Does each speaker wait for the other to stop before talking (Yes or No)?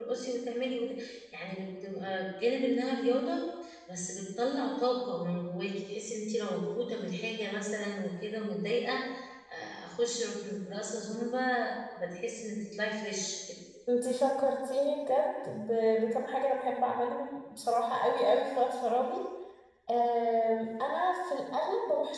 Yes